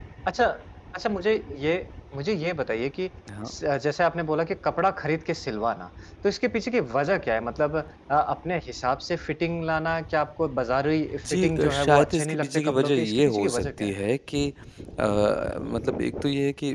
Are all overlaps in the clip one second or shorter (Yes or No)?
No